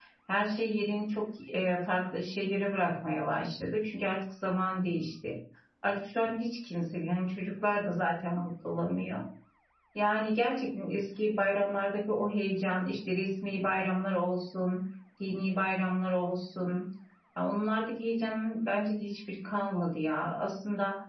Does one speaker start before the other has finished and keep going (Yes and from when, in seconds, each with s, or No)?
No